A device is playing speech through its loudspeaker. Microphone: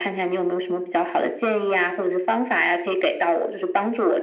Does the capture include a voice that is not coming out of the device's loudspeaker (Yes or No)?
No